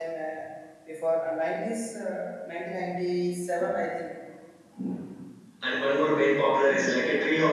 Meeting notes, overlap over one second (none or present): none